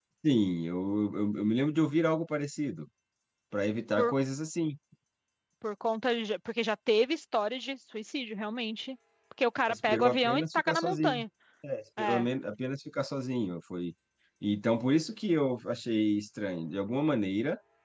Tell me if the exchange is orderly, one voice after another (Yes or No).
No